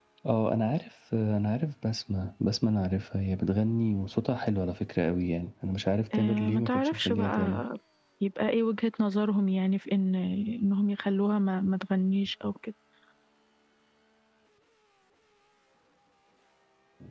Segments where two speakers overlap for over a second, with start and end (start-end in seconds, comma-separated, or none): 6.2-7.6